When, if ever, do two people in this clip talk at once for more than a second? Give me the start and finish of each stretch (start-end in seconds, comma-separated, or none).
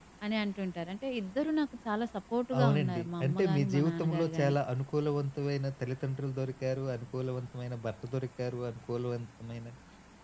2.6-4.5